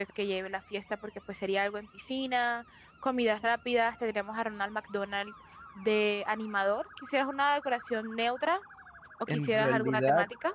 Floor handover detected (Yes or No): Yes